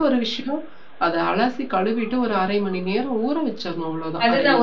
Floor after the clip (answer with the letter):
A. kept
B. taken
B